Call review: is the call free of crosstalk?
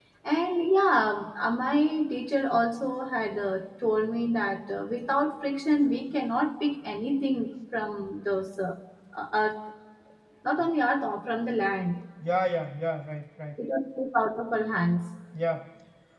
Yes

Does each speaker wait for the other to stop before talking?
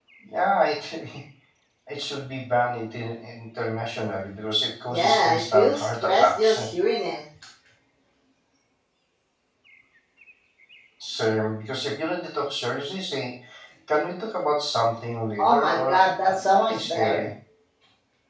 No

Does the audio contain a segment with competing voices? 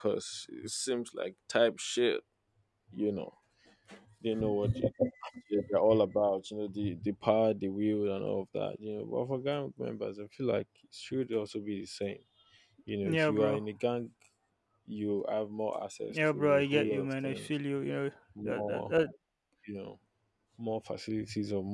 Yes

